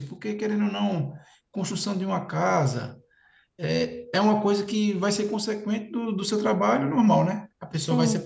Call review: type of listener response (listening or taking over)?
listening